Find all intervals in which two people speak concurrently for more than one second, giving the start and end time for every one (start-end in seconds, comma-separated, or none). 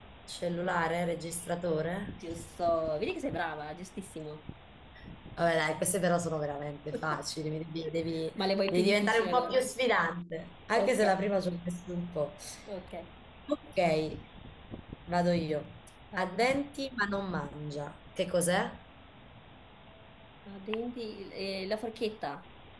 8.3-9.6